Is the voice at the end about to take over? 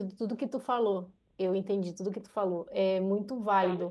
No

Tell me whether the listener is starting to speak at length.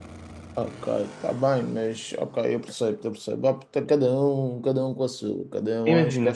Yes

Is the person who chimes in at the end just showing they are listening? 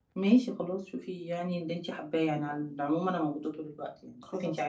Yes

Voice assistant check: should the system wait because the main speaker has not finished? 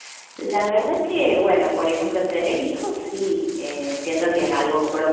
Yes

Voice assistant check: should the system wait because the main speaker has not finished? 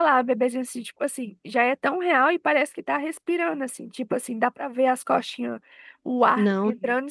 Yes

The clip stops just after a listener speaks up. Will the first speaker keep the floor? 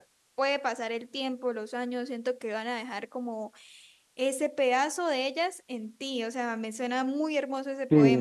No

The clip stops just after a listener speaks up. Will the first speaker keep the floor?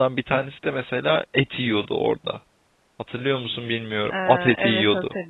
No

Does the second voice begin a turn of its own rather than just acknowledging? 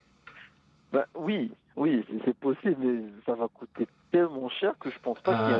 Yes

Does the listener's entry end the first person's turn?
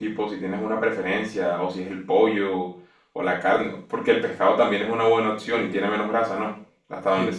Yes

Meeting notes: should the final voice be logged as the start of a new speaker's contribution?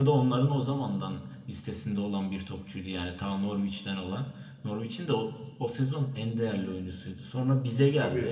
No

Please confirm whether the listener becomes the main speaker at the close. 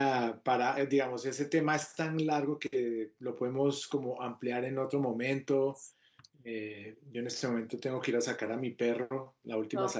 Yes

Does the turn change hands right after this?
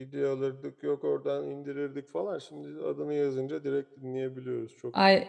Yes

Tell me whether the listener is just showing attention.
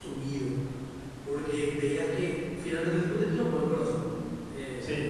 Yes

